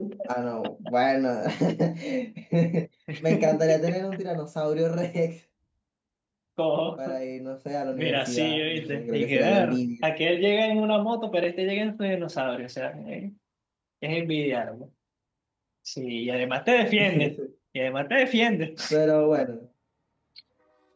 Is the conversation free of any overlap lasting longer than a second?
No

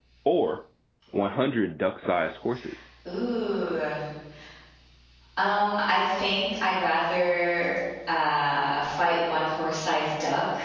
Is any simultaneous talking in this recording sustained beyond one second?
No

